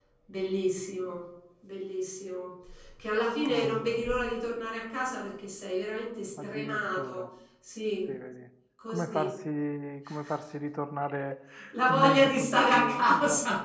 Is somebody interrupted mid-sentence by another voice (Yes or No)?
Yes